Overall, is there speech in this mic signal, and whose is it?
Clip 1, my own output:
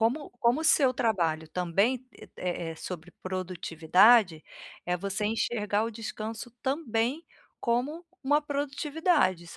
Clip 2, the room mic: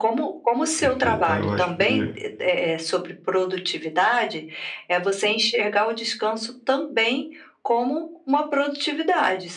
both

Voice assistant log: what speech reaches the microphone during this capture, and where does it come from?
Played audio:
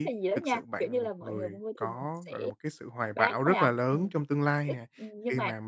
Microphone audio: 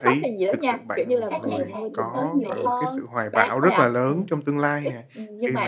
both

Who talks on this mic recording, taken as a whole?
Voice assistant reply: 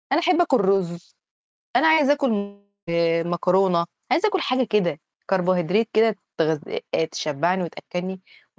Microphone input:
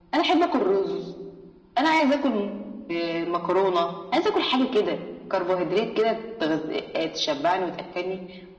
echo only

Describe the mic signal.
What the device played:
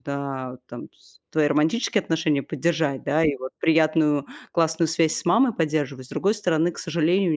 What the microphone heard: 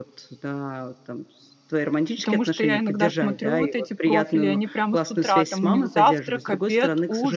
both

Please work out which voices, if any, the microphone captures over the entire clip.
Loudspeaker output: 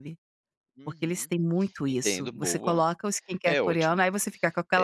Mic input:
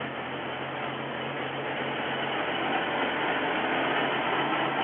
neither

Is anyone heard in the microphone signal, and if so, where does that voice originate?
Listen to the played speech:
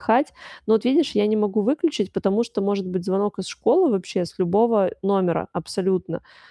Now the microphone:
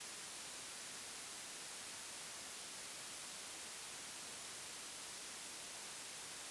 neither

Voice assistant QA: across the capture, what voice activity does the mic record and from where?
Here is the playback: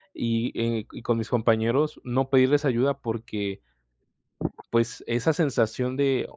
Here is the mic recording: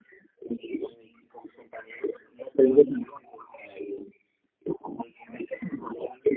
echo only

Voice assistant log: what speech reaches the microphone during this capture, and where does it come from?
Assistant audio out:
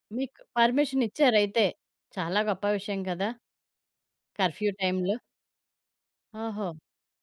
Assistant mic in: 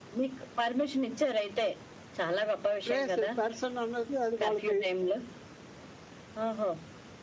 both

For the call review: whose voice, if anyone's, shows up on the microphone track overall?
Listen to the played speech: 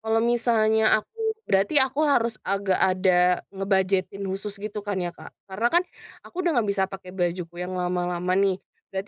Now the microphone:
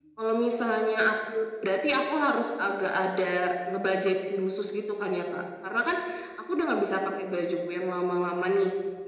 echo only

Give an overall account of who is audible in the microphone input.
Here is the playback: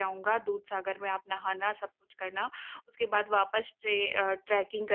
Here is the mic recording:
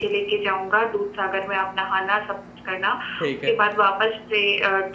both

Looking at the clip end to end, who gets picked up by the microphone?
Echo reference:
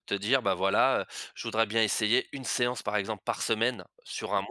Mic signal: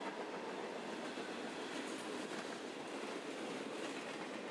neither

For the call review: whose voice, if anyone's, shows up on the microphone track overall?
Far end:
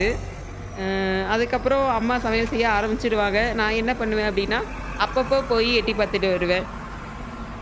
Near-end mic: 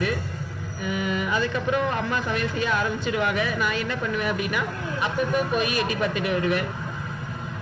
both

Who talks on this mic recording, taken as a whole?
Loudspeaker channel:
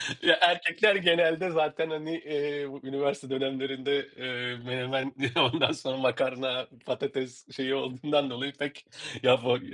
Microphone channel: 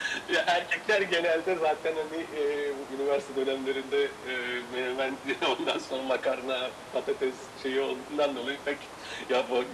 echo only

